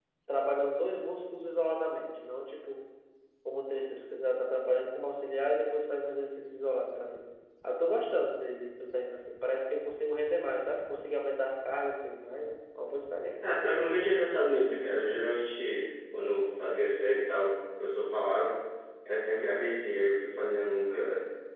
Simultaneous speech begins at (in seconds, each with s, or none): none